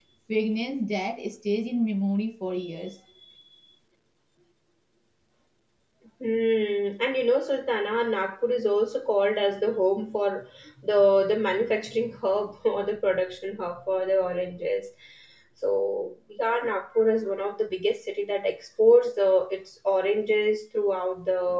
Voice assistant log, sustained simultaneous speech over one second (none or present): none